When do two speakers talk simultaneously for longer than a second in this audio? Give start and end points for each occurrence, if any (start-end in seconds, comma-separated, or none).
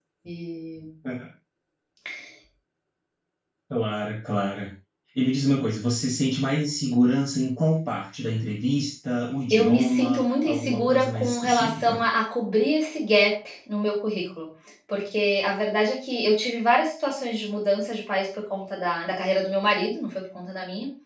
9.5-12.0